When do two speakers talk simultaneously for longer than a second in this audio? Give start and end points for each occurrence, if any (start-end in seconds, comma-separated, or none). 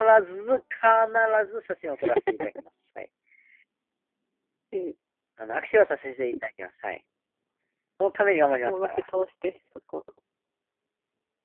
none